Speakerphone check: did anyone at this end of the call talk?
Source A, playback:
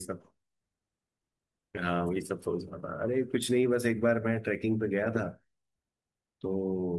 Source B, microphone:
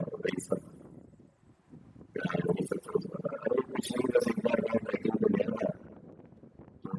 No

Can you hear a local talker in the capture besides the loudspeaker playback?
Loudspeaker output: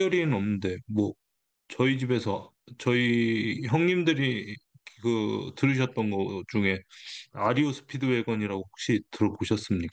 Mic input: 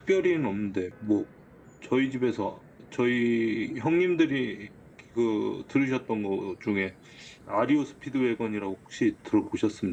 No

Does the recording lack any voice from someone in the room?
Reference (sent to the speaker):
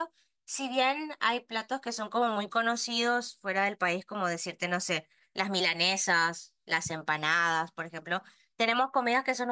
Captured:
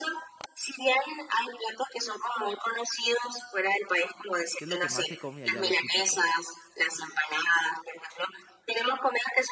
No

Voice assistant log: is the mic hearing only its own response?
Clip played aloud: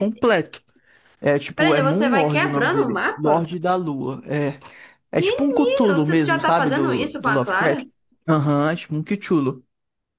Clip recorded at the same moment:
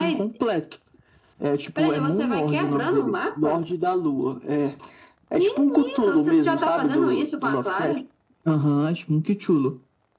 Yes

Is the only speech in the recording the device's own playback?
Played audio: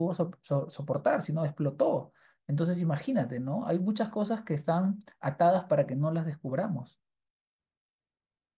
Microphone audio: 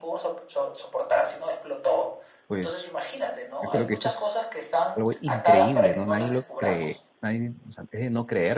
No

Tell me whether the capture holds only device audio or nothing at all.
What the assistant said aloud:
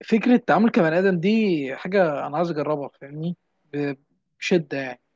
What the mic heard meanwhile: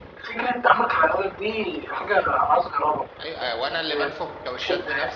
No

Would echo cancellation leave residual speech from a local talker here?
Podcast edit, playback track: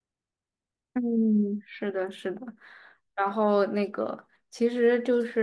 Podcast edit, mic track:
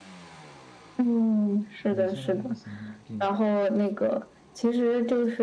Yes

